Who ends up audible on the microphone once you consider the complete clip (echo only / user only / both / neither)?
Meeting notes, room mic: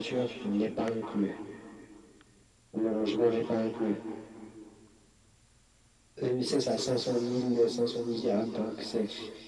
echo only